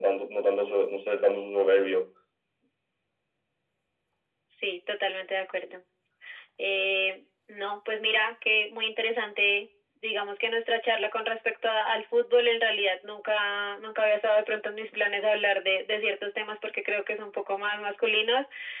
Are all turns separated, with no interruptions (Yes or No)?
Yes